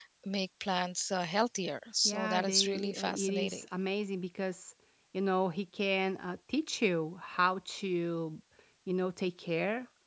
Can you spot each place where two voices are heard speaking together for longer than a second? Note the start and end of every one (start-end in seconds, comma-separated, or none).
2.0-3.6